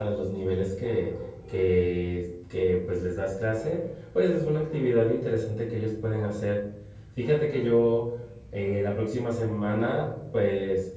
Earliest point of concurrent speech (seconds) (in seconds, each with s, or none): none